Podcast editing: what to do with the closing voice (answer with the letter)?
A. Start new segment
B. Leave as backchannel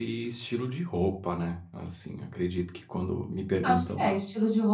A